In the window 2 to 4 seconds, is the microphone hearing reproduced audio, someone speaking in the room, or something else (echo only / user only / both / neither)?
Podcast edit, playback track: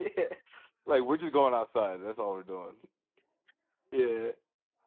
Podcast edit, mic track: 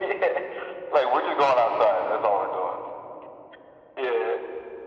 echo only